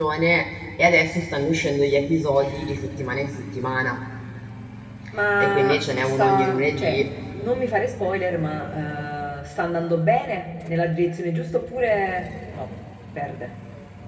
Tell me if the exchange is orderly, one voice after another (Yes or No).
No